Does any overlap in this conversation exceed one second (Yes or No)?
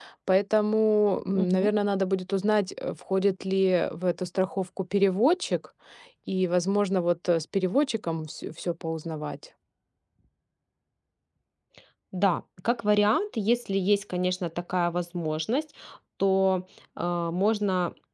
No